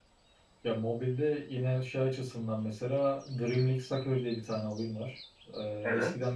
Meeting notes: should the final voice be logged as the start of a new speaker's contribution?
No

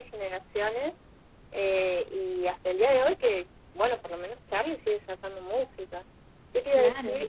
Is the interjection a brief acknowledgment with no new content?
Yes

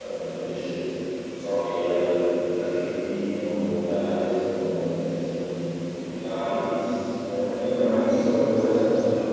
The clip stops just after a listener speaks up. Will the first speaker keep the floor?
Yes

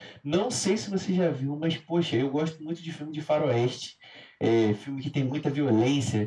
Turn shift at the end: No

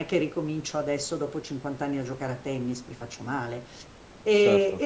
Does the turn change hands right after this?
No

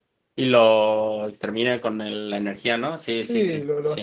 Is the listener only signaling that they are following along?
No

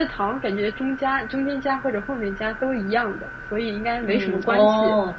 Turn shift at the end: Yes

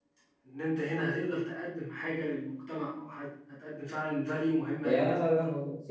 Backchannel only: No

